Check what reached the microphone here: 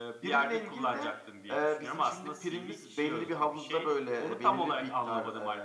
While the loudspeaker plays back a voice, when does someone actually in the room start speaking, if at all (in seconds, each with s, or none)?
none